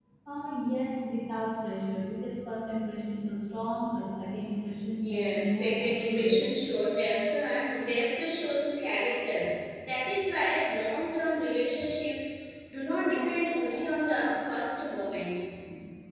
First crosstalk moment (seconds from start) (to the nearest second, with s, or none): 5 s